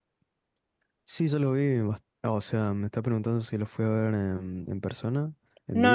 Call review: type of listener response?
taking over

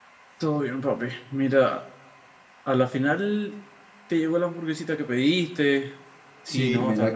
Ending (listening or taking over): taking over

